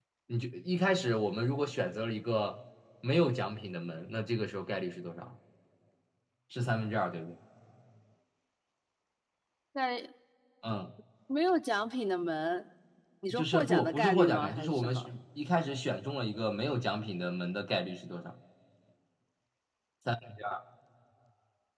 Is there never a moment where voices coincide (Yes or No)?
No